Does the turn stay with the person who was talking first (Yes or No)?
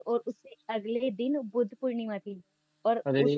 Yes